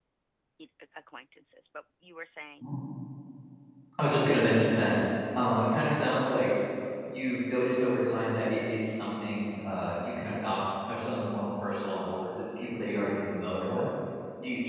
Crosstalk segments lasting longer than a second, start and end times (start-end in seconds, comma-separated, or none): none